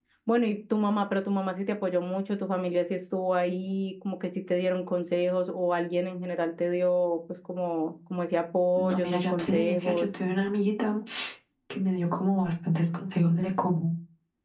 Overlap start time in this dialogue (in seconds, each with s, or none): 8.8 s